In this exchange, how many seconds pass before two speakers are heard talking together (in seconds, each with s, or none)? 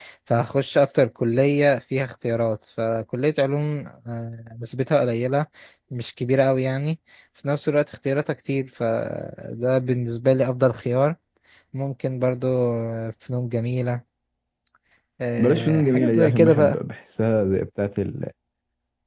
15.4 s